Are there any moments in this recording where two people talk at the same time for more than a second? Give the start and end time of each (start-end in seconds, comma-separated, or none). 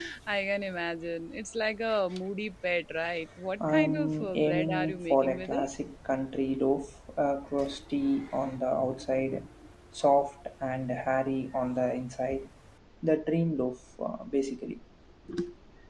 3.7-5.7